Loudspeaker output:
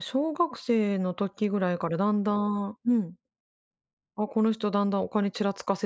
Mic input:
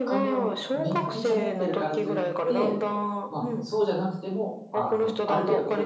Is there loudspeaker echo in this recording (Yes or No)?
Yes